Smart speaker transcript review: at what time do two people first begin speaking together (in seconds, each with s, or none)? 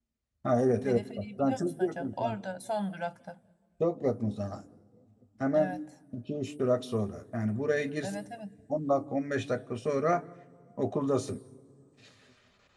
0.8 s